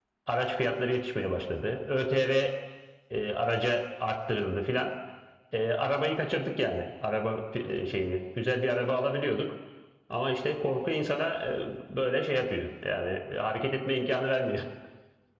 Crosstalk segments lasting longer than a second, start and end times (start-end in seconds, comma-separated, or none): none